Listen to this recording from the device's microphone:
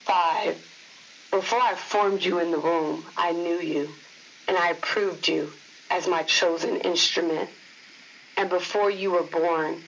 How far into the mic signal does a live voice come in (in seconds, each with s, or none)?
none